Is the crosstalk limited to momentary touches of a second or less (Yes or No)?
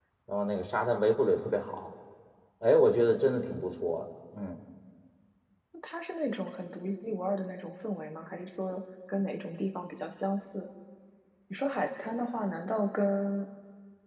Yes